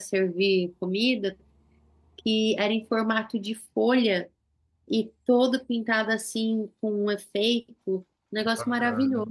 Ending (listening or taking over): taking over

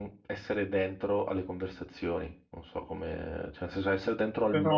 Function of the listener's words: listening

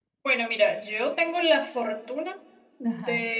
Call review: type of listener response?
listening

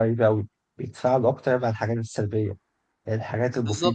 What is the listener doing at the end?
listening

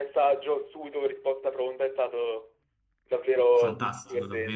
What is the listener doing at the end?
taking over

